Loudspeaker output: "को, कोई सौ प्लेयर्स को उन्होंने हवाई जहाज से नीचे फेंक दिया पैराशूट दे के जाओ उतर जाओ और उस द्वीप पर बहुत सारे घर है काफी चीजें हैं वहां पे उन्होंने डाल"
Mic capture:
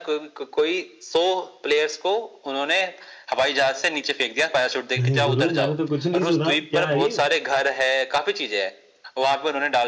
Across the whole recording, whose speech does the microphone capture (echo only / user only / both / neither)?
both